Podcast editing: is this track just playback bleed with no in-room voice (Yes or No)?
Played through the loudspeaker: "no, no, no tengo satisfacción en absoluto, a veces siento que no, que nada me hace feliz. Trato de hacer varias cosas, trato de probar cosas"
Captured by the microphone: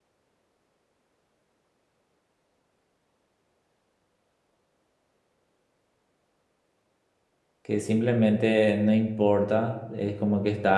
No